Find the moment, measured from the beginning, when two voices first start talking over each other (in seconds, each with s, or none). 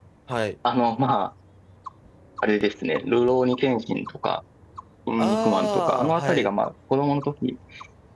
5.2 s